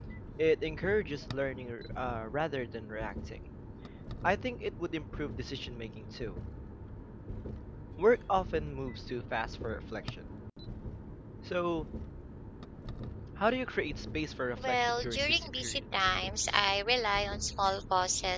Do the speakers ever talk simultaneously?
Yes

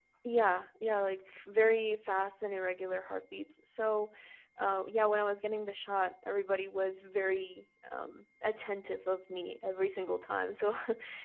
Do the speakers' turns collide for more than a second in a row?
No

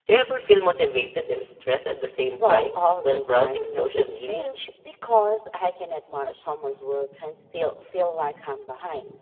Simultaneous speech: Yes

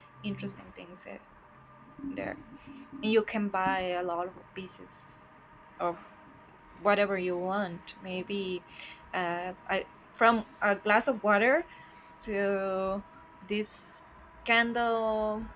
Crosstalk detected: No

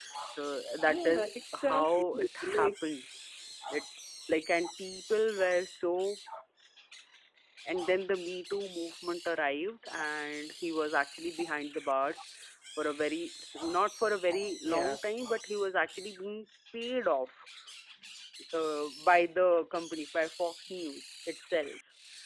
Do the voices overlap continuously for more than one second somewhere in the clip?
Yes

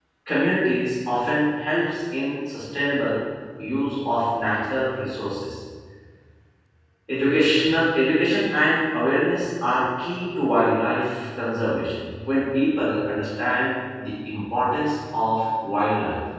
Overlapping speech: No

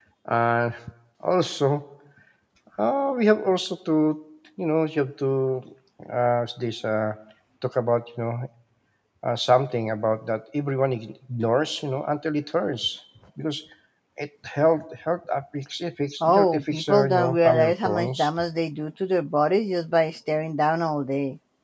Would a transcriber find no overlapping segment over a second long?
No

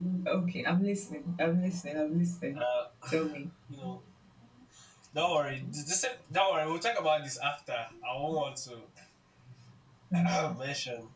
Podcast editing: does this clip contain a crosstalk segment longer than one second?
No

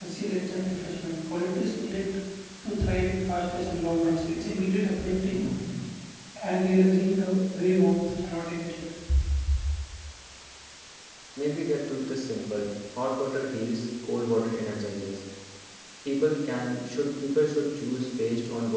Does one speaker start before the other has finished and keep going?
No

